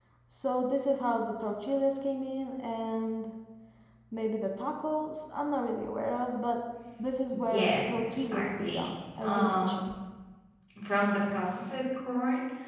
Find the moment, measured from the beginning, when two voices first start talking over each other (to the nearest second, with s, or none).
7 s